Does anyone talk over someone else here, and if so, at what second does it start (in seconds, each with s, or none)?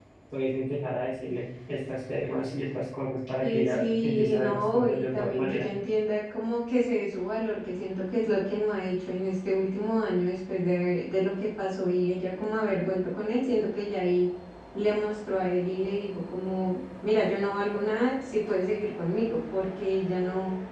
3.4 s